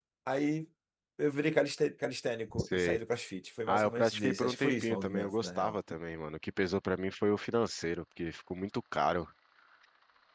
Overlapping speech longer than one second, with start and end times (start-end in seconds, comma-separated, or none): 3.7-5.8